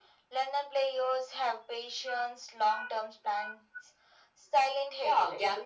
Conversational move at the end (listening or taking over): taking over